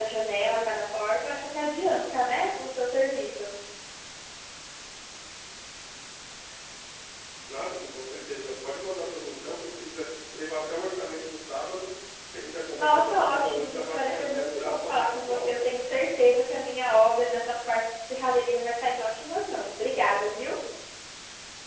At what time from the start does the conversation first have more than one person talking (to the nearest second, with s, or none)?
13 s